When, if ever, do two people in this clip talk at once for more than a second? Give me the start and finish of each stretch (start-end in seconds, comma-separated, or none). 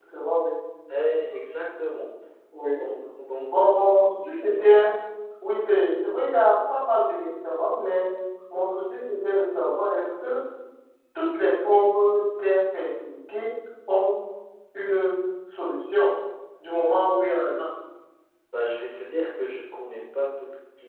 none